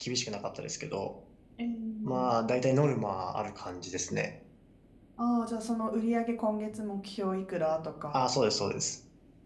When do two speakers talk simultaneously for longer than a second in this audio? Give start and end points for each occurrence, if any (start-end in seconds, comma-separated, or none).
none